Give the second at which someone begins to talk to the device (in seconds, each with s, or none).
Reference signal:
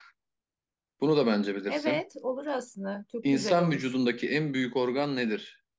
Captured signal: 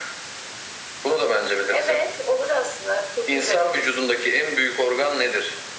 none